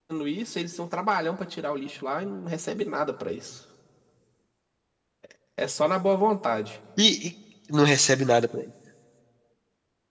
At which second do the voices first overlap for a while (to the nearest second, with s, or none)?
none